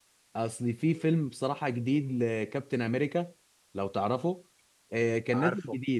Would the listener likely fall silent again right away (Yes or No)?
Yes